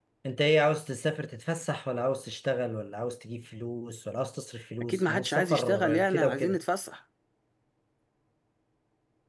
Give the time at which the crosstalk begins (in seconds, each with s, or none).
4.8 s